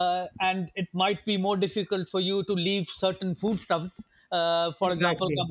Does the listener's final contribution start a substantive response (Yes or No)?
No